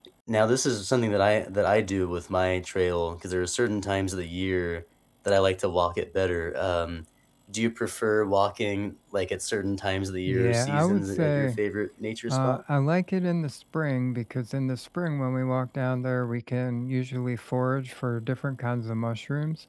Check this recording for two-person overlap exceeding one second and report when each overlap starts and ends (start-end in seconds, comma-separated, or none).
10.3-11.6